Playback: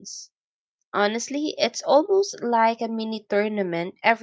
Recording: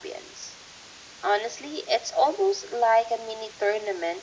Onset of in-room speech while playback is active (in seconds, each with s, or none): none